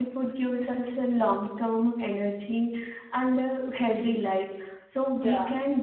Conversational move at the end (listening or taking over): listening